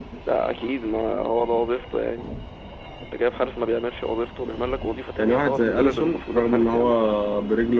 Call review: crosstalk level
present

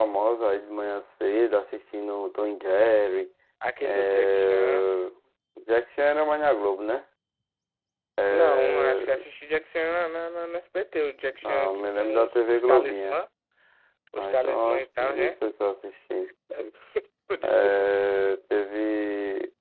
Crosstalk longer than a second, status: present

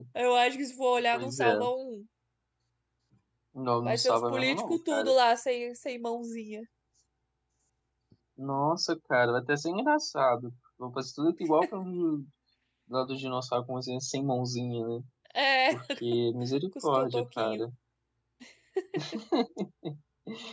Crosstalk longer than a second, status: present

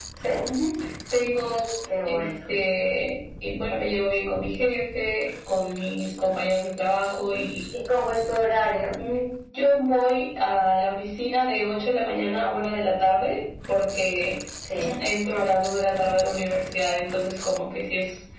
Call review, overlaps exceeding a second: none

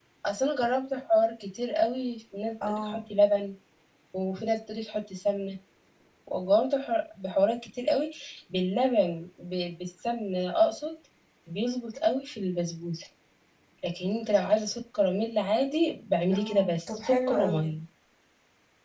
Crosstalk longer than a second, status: present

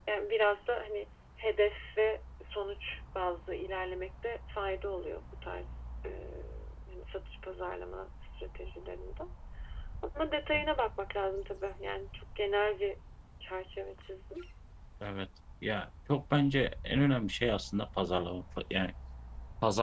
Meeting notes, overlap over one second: none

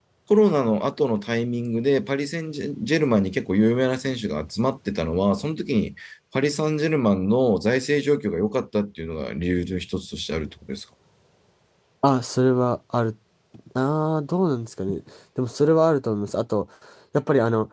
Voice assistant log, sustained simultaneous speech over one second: none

